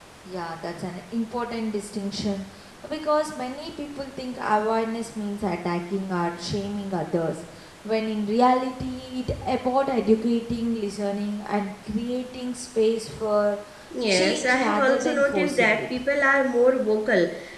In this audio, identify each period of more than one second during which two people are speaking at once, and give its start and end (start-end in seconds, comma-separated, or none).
14.1-16.0